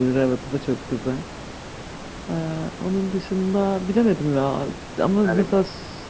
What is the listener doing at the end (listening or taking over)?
listening